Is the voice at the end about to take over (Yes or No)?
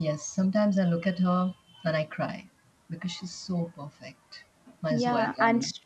Yes